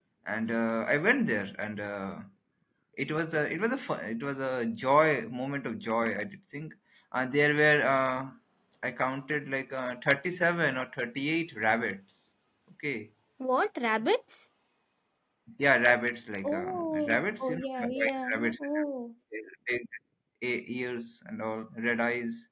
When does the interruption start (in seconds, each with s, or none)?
16.4 s